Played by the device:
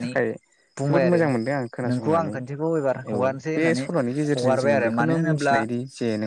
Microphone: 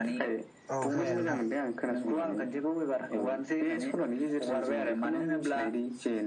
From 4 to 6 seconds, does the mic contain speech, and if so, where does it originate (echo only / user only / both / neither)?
echo only